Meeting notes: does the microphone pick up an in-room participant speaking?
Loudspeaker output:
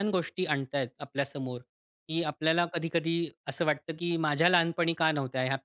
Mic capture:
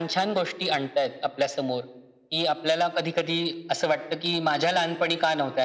No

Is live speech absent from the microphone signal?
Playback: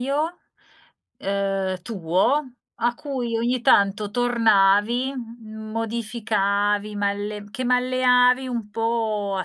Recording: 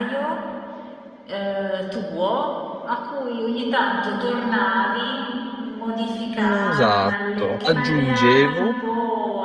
No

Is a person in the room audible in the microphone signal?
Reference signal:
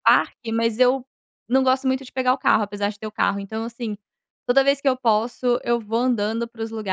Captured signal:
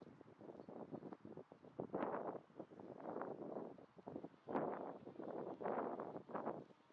No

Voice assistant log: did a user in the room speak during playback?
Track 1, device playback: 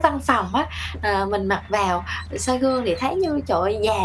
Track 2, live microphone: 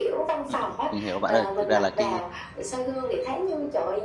Yes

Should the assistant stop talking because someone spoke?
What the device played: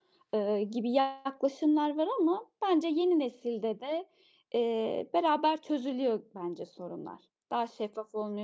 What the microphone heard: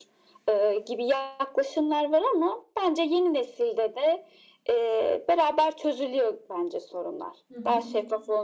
Yes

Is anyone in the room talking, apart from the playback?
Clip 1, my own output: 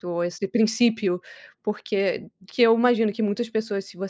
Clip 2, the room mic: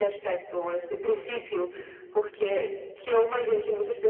No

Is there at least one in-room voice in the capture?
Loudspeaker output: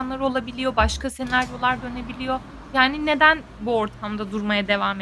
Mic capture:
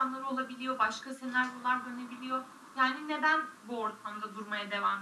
No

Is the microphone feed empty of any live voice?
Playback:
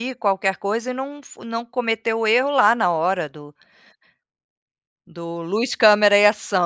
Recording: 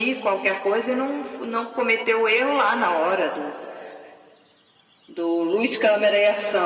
Yes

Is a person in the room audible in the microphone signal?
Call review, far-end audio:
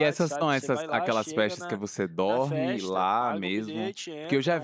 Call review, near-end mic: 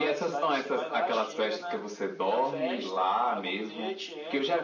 No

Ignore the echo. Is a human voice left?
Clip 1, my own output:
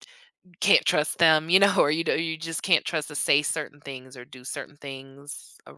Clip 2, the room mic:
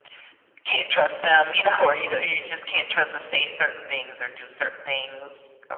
No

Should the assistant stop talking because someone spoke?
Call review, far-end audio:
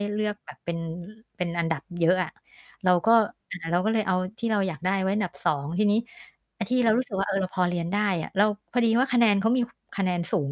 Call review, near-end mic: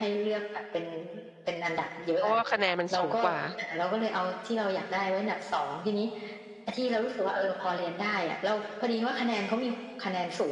Yes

